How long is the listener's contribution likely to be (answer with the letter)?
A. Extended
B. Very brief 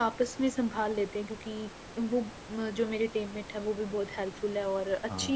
B